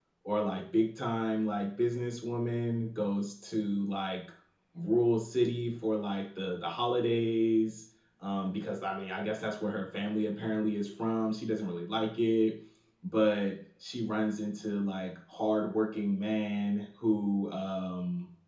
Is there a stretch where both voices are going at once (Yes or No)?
No